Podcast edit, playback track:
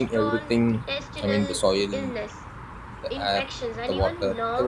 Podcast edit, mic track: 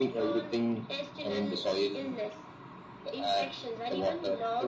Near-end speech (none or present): none